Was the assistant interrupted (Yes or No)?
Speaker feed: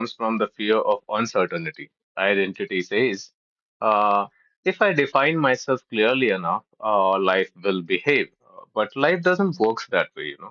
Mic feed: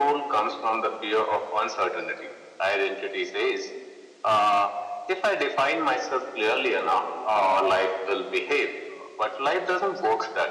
No